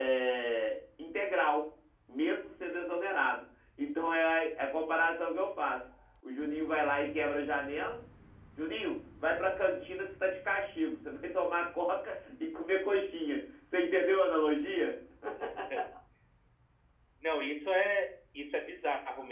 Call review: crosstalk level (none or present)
none